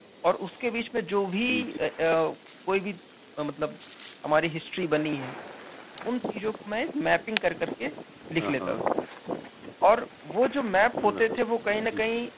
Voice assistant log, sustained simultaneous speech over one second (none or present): none